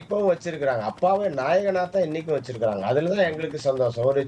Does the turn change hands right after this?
No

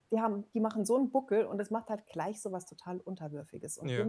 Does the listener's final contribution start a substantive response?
No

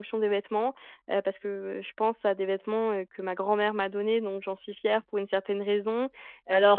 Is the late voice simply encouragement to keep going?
No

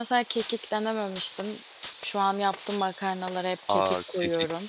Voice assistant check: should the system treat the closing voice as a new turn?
Yes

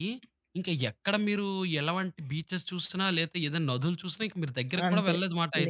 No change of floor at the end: No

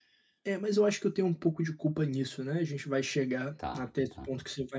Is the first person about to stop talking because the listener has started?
No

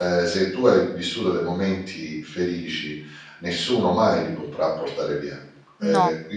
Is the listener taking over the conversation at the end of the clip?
No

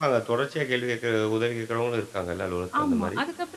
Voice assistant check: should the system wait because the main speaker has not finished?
No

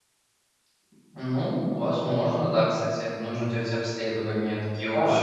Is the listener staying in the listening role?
No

